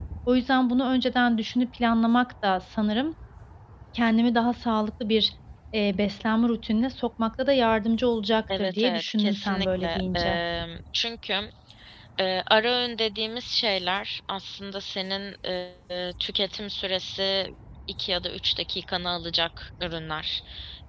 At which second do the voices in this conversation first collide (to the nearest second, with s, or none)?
8 s